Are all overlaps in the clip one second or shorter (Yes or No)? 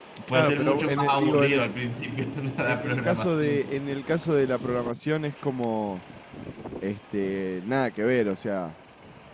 No